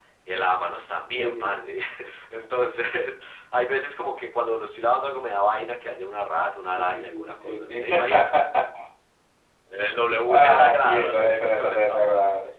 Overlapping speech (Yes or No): Yes